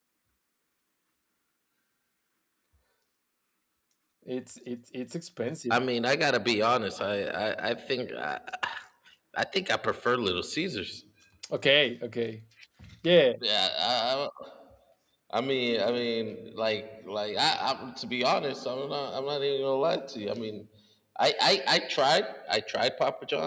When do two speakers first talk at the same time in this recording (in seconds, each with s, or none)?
none